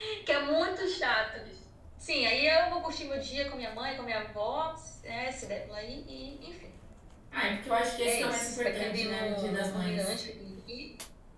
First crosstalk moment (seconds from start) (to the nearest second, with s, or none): 8 s